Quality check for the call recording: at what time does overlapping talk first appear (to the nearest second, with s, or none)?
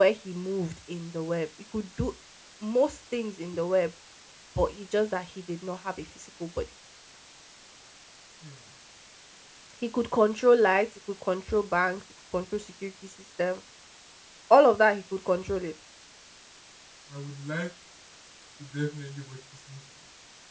none